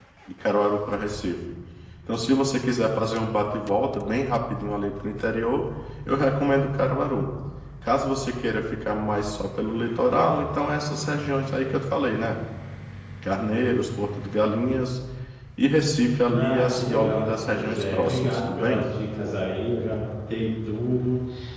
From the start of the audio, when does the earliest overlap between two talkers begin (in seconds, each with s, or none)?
16.3 s